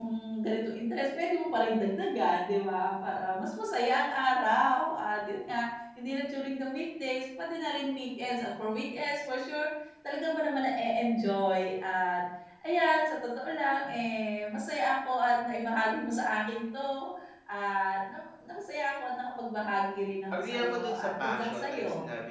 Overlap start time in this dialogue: 20.3 s

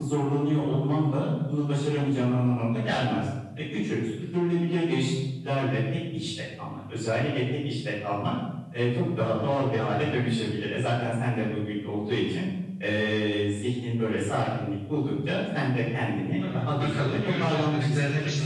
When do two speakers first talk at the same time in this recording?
16.4 s

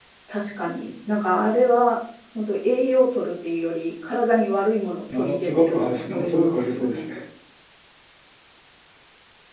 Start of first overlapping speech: 5.1 s

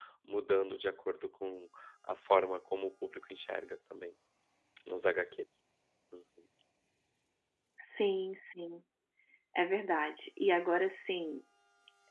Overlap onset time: none

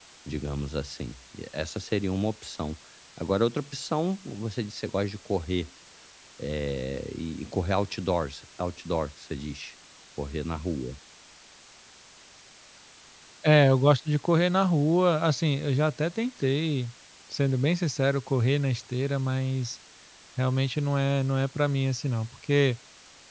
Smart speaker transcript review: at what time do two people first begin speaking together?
none

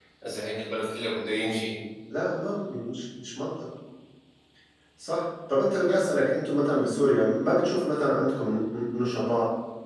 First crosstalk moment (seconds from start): none

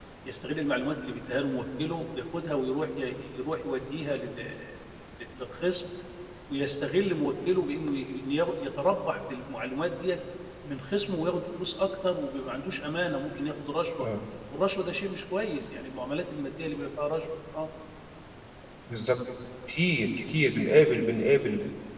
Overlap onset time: none

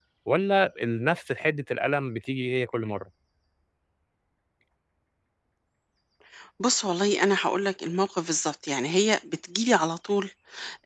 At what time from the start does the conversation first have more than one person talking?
none

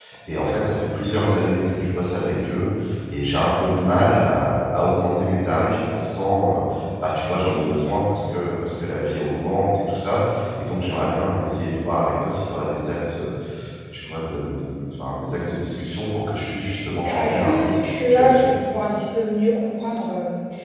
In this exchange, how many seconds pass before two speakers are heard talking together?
17.1 s

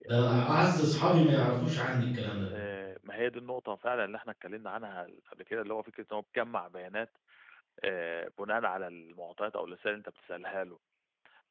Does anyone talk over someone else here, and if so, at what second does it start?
none

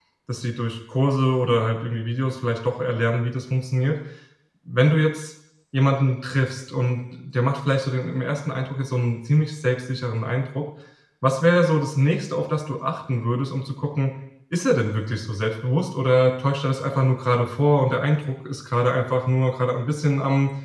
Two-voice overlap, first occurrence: none

